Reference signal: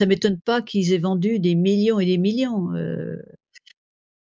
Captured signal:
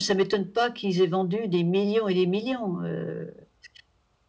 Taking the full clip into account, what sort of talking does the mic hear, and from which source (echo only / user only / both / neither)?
echo only